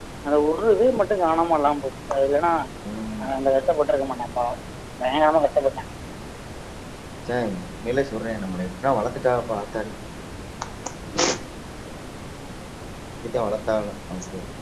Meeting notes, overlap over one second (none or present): none